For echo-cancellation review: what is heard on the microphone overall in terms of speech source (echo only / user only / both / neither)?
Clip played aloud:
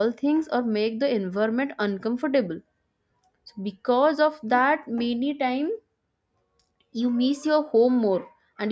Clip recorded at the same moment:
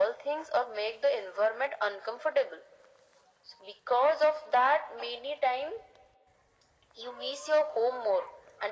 echo only